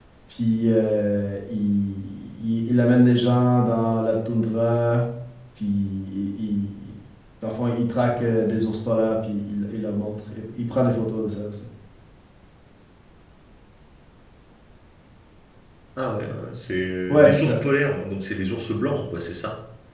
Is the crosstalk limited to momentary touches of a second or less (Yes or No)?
Yes